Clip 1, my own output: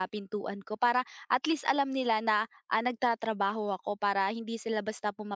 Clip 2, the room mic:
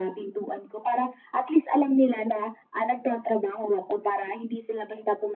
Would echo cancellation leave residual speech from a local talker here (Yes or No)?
No